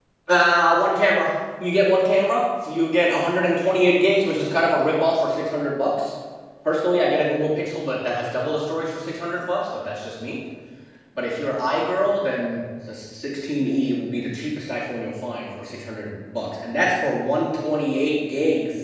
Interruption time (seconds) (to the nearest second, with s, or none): none